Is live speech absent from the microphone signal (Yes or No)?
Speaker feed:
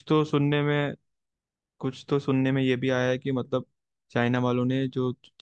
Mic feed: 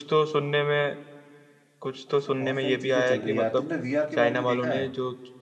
No